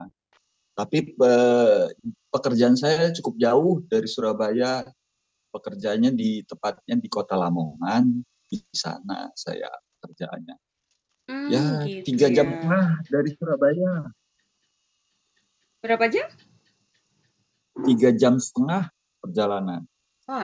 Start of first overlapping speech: 11.5 s

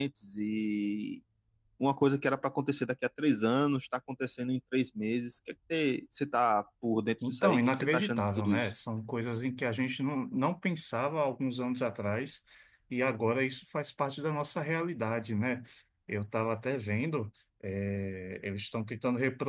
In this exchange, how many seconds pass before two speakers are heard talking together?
7.2 s

